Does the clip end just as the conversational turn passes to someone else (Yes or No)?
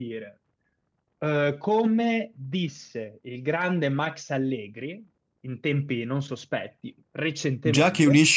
Yes